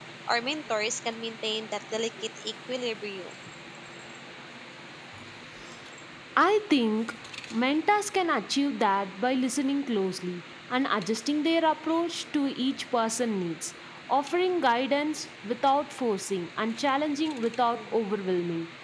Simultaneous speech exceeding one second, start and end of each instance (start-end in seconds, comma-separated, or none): none